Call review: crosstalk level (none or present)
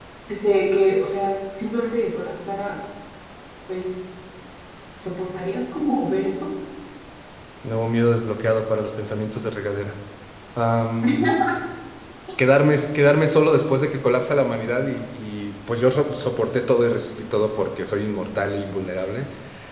none